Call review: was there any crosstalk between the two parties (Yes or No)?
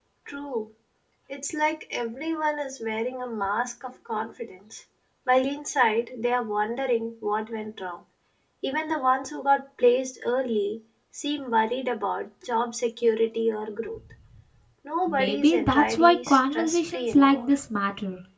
Yes